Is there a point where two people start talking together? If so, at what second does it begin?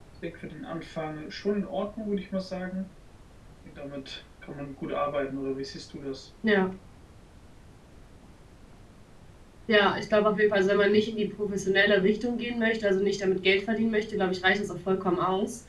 none

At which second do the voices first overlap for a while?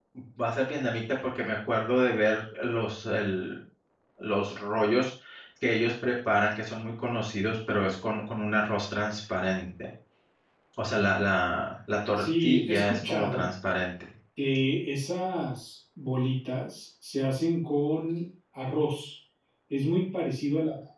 12.2 s

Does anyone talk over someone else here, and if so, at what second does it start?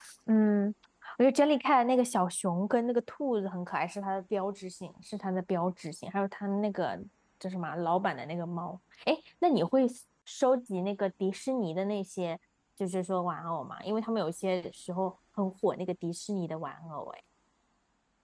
none

